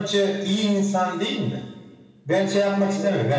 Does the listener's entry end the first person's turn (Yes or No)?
No